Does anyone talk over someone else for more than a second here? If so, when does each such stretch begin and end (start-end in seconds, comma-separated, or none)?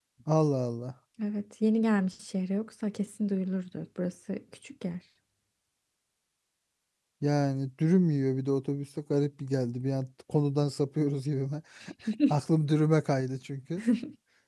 none